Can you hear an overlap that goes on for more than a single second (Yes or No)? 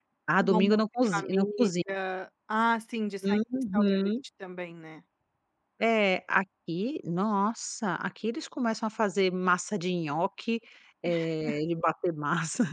Yes